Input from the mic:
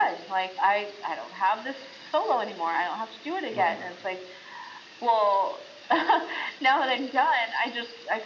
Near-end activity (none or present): present